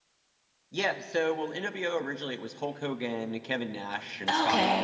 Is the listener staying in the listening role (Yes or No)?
Yes